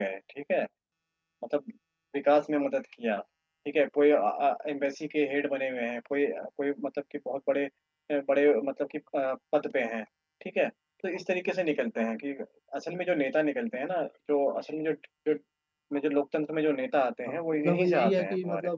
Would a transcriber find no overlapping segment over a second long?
No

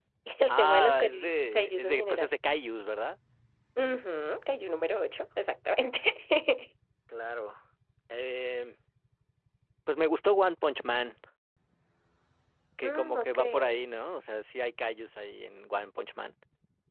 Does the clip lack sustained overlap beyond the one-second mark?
No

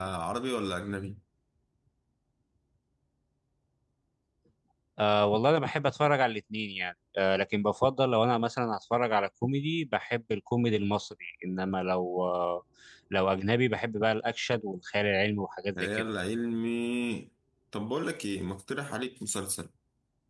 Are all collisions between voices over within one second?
Yes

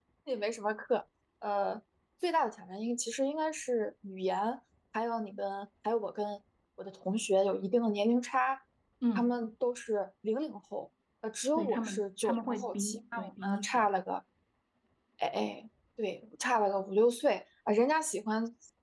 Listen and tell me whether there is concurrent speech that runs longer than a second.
Yes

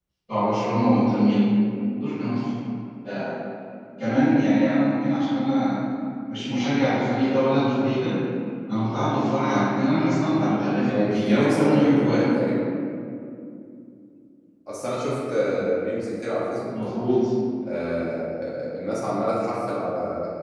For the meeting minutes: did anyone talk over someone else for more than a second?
Yes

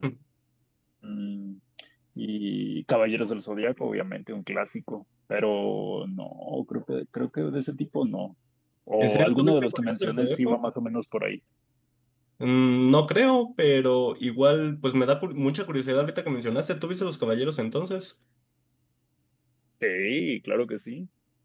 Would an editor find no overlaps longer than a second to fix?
No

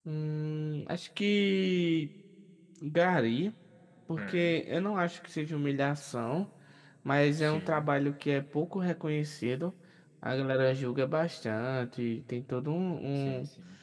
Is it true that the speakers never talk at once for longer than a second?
Yes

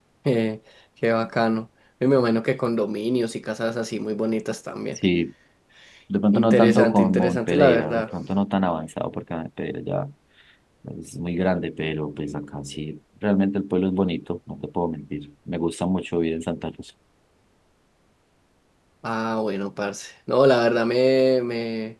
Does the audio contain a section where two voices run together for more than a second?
Yes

